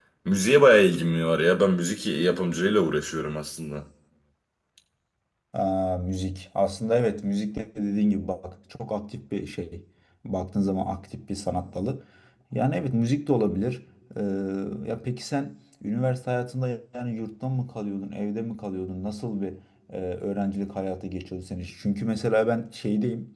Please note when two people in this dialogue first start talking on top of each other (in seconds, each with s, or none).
none